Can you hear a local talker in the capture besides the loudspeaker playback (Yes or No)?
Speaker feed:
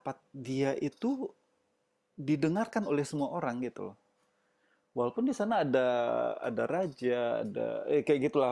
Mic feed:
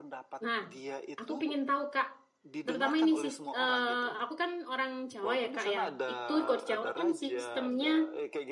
Yes